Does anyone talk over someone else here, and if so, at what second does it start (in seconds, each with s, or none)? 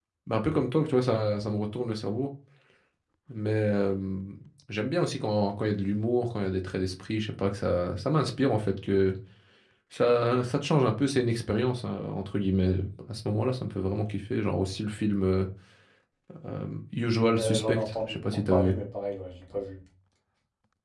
17.4 s